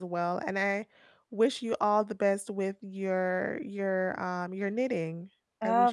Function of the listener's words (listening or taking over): taking over